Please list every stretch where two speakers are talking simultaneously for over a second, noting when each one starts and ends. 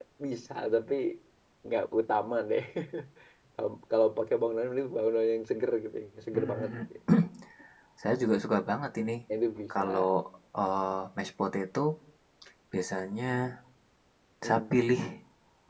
none

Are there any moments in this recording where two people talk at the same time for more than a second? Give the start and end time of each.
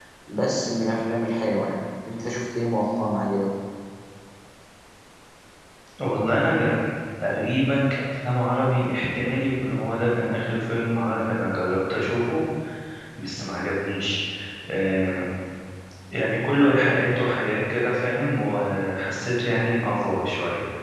none

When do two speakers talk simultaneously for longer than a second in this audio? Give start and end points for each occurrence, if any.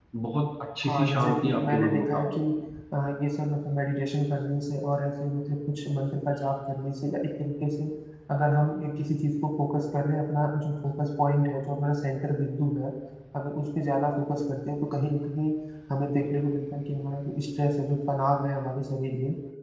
0.9-2.4

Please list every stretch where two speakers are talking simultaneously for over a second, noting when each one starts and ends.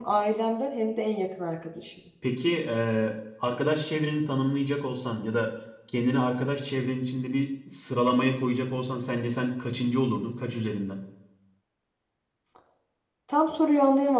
none

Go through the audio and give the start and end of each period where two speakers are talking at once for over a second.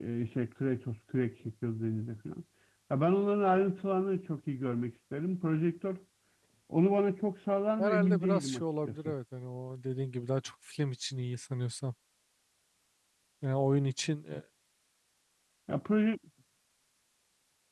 7.8-9.1

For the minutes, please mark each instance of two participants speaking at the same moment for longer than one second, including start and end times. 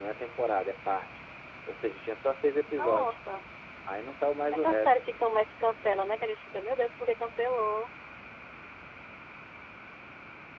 none

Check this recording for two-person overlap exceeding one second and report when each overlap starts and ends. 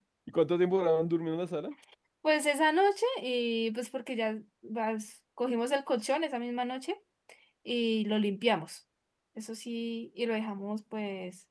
none

